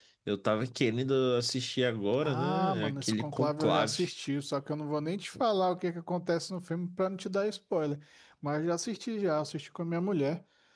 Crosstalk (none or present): present